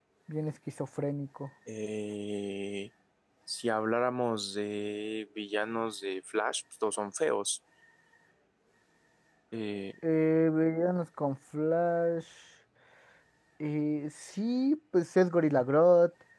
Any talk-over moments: No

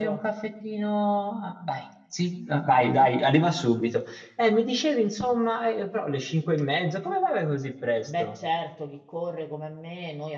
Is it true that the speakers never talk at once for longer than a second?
Yes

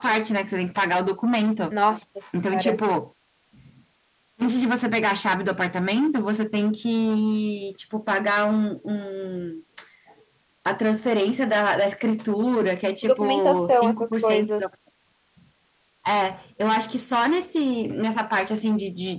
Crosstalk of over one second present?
Yes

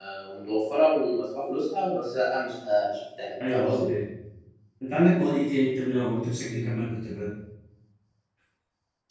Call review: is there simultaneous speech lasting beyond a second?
No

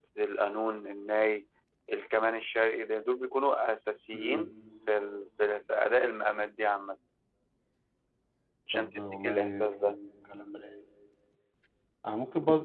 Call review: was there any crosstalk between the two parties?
Yes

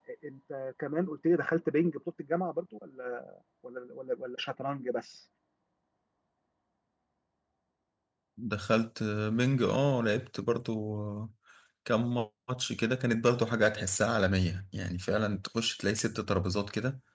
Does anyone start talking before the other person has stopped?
No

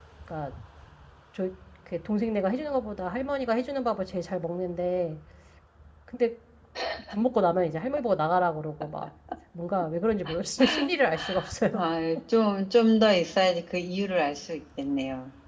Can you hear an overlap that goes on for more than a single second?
No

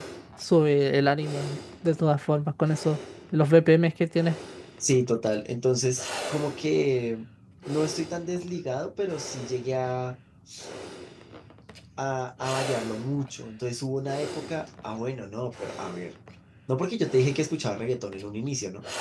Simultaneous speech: No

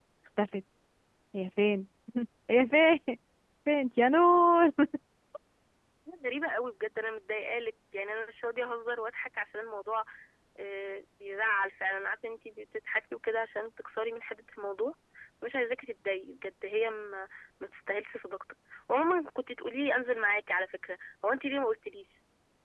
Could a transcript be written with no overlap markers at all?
Yes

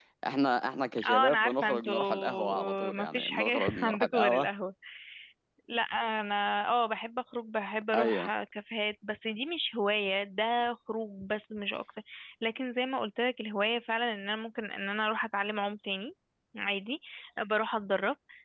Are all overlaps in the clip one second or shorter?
No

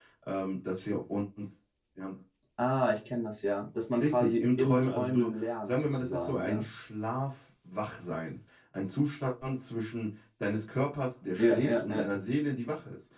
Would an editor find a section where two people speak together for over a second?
Yes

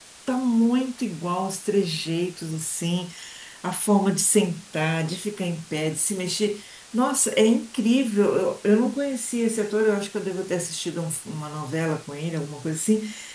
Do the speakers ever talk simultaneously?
No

